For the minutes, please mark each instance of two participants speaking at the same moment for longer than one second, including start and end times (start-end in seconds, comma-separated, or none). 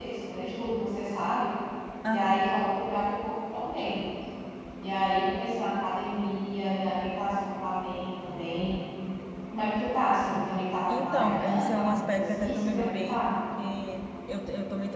10.9-13.3